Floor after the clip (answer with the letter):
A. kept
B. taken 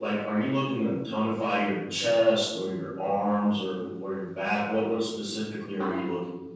B